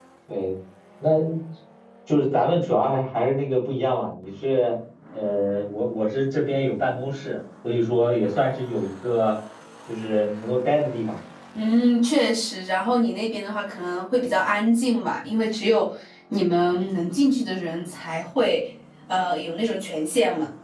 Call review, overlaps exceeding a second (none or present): none